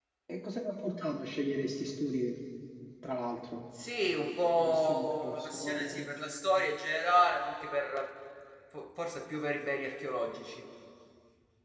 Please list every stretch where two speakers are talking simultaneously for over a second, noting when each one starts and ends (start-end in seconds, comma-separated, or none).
4.6-6.1